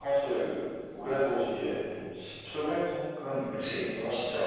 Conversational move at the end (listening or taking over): taking over